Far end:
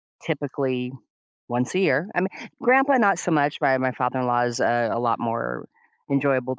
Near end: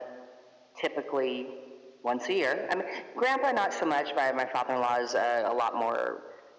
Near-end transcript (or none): none